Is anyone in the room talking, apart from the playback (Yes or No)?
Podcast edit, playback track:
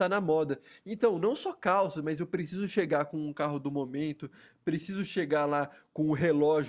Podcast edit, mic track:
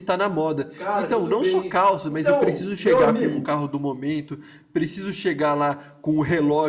Yes